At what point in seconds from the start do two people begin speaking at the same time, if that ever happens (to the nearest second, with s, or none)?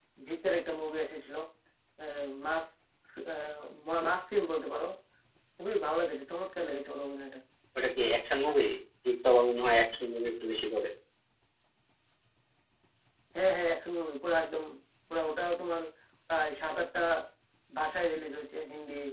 none